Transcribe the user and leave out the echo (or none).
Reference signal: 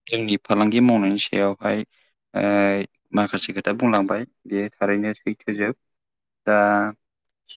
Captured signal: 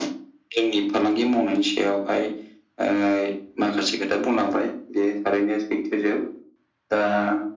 none